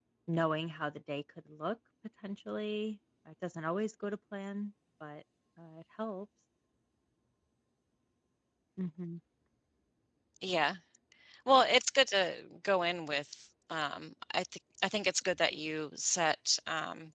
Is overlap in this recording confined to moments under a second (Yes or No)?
Yes